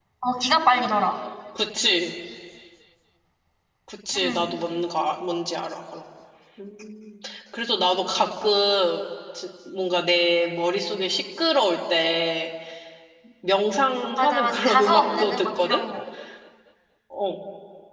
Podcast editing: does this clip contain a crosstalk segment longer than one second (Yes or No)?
Yes